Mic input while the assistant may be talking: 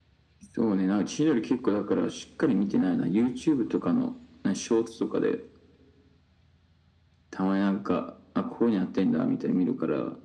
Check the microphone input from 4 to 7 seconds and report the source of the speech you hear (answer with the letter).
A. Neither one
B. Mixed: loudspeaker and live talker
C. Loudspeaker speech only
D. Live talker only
C